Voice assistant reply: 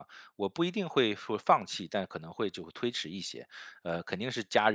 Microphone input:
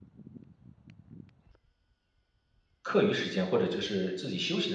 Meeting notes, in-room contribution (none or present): present